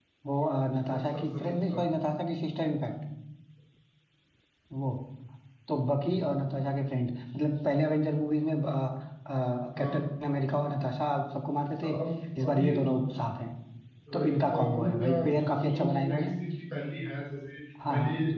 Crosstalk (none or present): present